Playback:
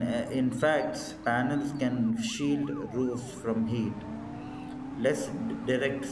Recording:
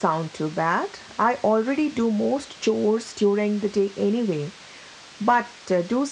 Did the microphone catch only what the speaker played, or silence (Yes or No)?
No